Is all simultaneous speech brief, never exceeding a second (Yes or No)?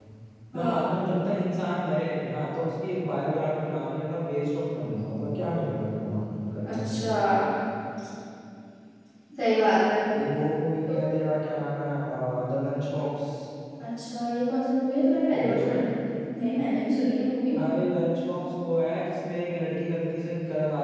Yes